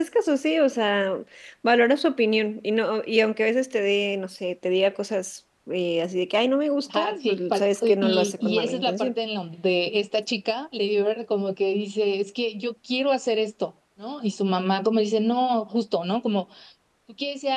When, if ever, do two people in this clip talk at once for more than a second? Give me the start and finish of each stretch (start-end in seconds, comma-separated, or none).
6.9-9.1